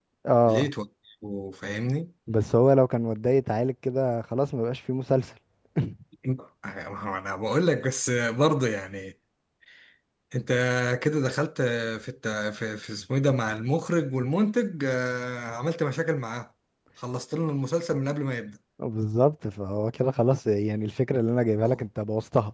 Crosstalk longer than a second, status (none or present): none